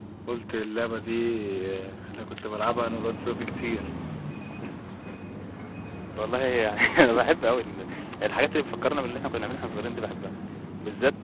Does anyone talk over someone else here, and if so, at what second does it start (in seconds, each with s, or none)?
none